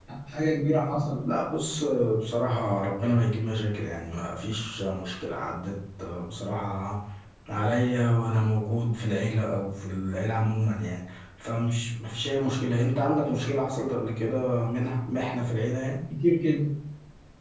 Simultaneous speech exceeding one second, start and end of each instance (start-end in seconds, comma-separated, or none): none